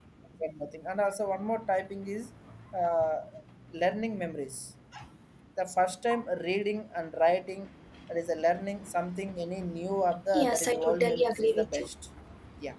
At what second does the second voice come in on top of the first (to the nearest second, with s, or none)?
10 s